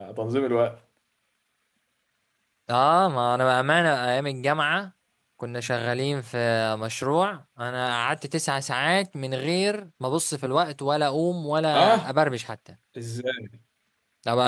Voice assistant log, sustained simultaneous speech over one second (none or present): none